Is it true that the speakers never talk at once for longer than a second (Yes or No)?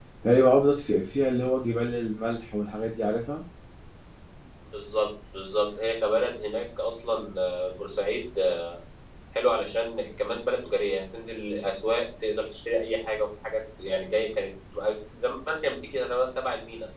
Yes